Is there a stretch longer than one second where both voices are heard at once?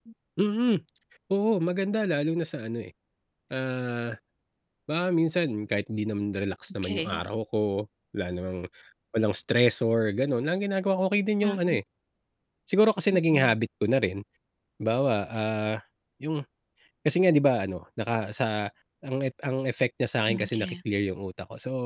No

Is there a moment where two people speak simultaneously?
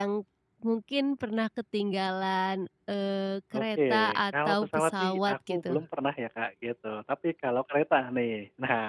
Yes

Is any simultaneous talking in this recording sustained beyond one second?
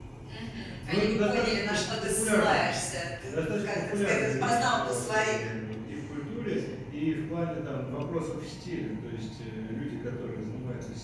Yes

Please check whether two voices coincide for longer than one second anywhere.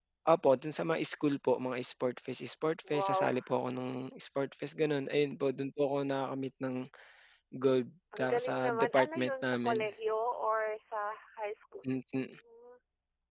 Yes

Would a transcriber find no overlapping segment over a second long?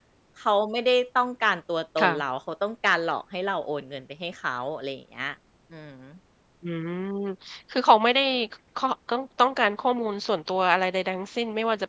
Yes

